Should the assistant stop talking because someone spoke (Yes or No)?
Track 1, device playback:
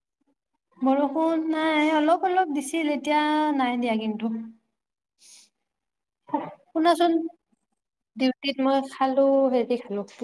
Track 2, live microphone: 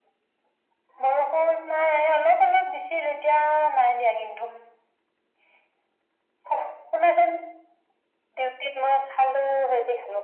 No